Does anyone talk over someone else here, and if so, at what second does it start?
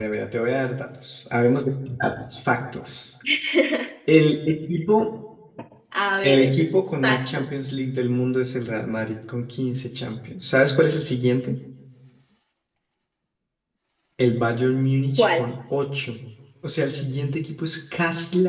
6 s

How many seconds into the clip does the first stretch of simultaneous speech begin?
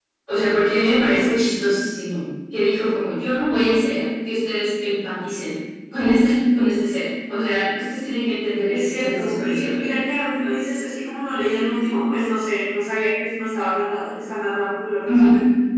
9 s

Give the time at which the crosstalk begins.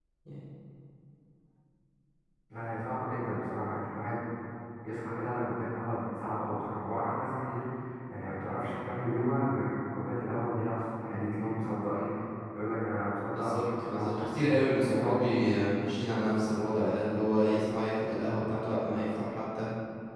13 s

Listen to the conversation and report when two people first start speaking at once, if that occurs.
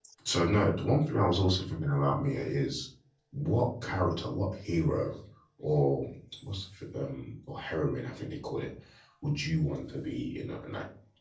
none

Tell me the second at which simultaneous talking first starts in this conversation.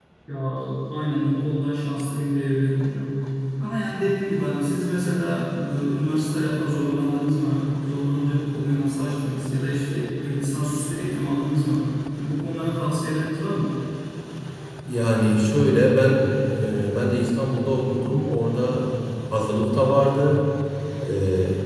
none

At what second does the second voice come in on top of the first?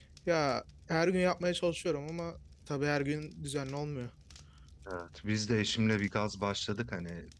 none

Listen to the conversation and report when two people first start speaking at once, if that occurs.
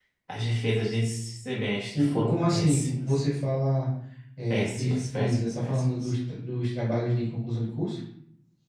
2 s

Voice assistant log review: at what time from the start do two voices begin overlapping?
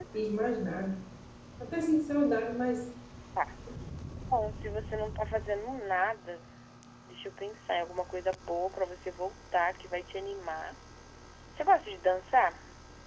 none

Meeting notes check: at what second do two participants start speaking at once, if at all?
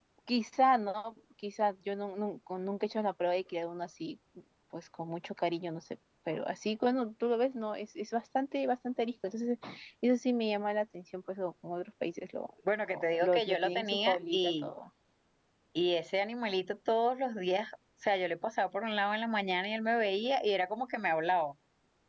13 s

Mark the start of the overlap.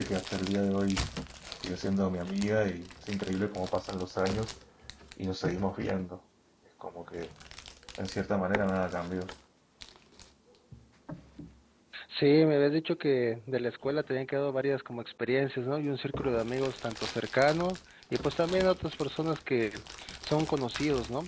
none

